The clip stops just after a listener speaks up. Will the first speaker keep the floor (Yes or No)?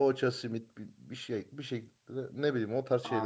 No